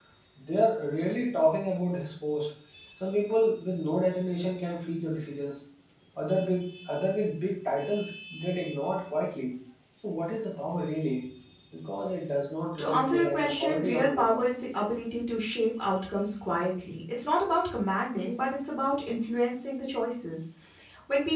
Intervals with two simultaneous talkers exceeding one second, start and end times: 12.8-14.5

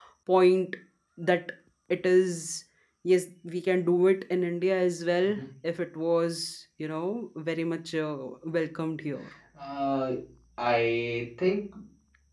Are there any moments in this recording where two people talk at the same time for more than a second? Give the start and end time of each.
none

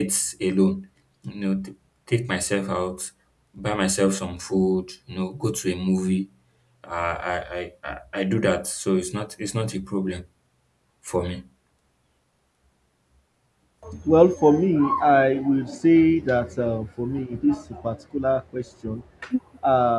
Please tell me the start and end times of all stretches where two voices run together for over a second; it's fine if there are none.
none

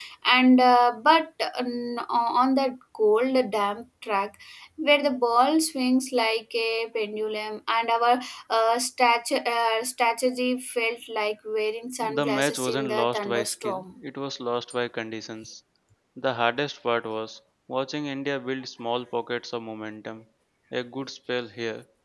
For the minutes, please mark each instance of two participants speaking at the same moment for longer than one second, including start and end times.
12.1-13.8

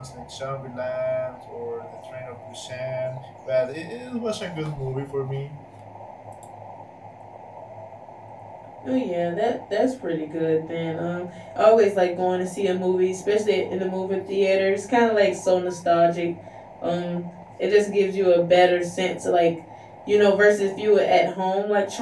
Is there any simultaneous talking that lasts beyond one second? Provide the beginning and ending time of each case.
none

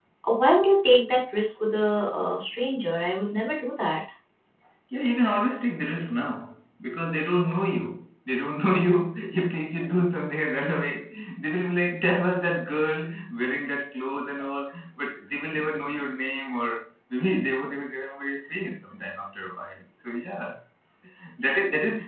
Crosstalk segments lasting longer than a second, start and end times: none

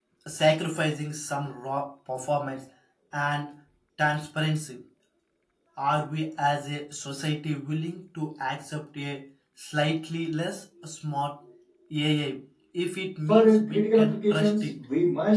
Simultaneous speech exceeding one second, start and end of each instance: 13.3-14.8

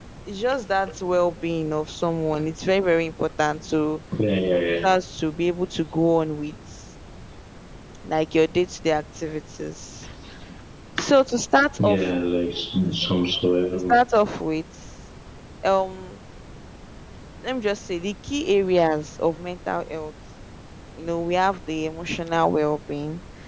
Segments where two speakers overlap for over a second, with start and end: none

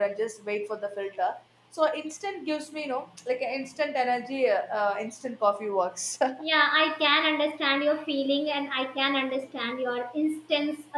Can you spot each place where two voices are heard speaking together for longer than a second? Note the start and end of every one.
none

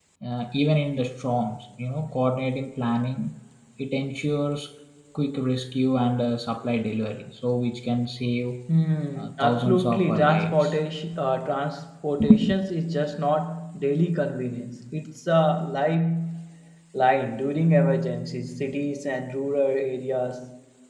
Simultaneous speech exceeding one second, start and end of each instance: 9.2-10.8

